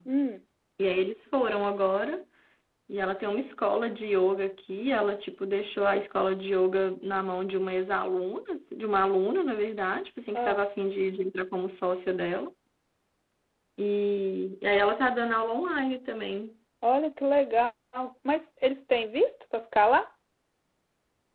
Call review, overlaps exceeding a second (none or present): none